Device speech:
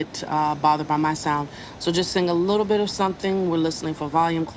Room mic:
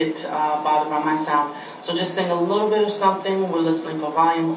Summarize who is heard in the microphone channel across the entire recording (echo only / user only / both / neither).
echo only